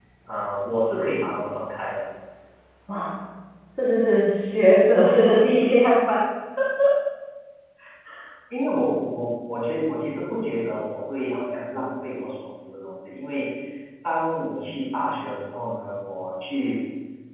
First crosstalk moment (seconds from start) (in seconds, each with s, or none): none